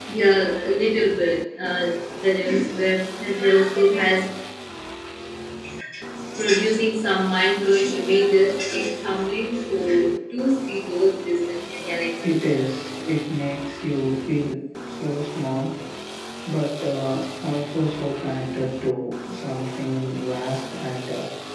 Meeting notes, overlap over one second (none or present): none